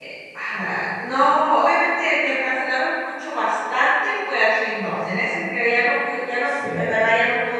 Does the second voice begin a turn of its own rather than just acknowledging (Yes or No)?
No